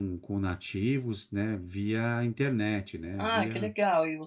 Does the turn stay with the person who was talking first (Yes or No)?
No